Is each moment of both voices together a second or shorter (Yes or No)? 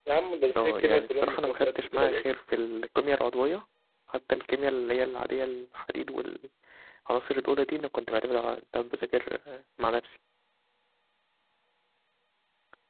No